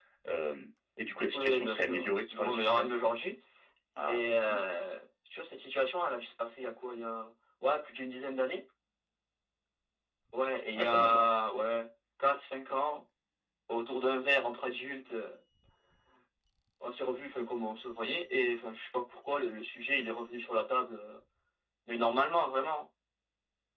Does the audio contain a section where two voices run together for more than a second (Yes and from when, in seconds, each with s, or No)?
Yes, from 1.3 s